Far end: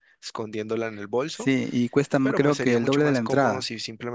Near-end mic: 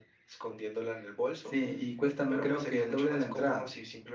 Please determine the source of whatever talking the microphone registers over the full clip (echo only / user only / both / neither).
echo only